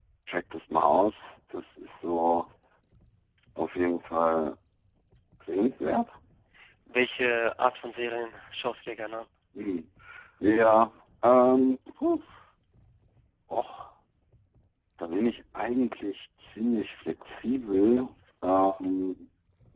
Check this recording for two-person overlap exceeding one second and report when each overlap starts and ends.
none

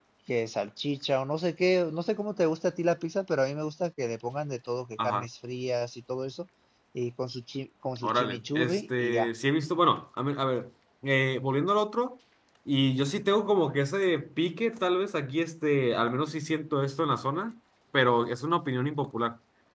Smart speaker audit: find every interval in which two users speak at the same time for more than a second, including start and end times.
8.0-9.3

